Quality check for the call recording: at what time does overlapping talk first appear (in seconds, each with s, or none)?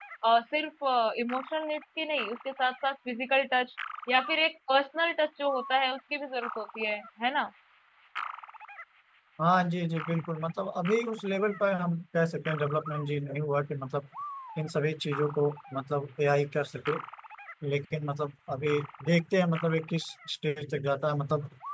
none